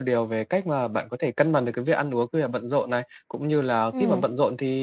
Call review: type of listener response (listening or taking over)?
listening